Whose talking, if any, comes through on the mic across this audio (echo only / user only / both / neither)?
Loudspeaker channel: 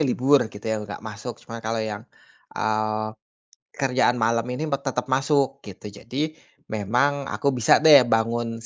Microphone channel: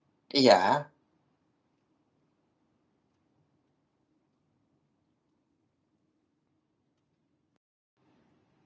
user only